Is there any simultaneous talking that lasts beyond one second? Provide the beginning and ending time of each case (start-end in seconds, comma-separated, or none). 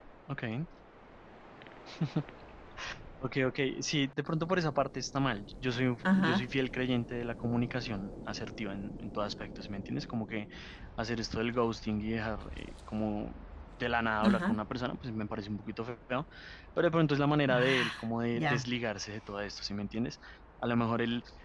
none